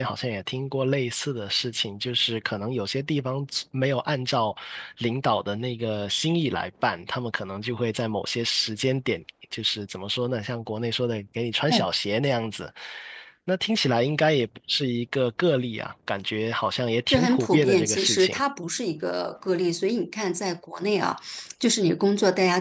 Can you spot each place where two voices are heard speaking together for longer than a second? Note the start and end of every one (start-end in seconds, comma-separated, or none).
17.1-18.4